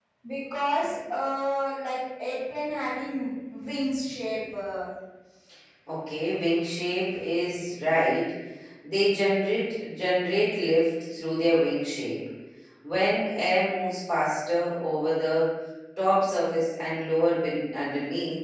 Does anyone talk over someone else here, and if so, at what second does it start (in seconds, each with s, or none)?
none